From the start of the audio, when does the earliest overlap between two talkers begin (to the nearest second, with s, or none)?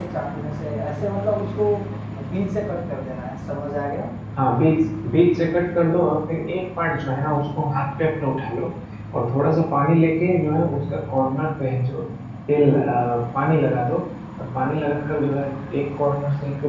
none